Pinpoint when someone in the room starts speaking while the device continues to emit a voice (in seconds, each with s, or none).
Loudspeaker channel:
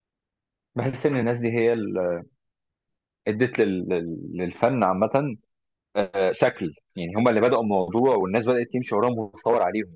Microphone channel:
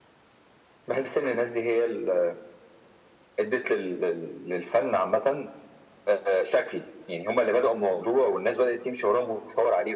none